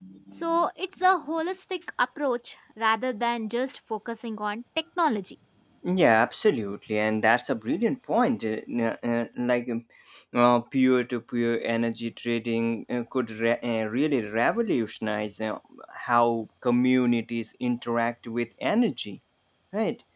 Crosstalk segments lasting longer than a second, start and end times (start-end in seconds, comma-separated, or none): none